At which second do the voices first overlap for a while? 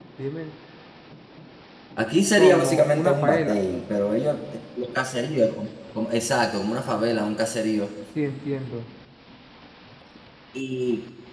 2.4 s

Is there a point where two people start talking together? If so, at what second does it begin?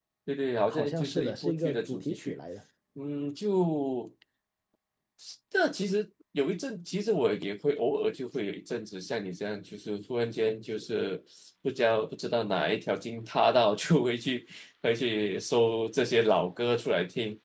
0.7 s

